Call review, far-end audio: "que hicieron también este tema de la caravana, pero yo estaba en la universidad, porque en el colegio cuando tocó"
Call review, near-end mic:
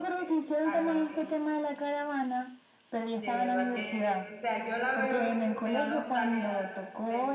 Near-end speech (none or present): present